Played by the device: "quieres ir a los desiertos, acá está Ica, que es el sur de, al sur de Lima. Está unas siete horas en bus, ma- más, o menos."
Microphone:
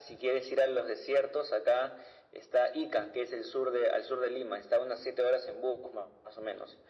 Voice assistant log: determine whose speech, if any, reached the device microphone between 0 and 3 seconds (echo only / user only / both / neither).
echo only